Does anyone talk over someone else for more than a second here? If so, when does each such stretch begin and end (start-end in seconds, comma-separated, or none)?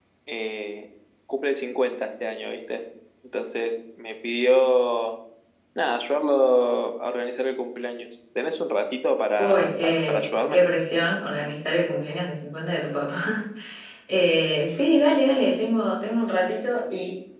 9.4-10.6